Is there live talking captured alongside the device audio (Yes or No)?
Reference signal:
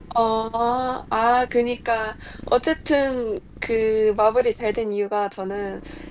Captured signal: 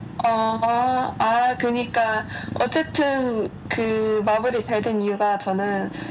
No